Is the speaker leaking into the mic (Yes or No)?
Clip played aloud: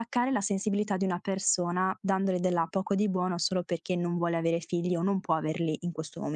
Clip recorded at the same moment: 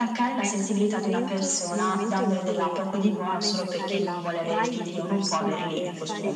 Yes